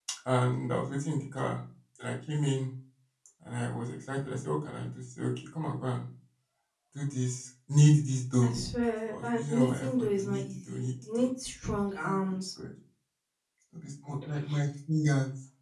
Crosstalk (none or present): present